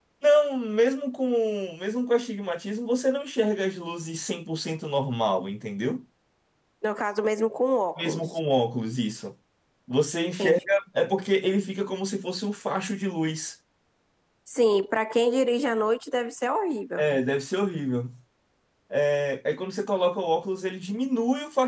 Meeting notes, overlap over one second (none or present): none